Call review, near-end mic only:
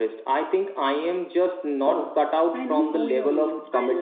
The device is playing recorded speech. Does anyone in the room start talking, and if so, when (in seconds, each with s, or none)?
1.8 s